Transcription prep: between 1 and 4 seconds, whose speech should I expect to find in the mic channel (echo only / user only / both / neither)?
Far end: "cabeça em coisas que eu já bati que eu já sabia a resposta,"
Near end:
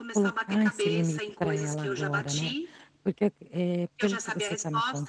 both